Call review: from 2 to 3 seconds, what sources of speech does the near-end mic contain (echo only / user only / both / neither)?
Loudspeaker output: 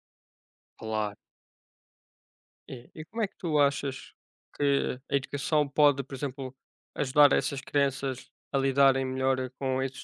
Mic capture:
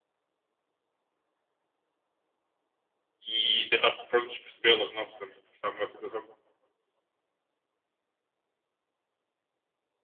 neither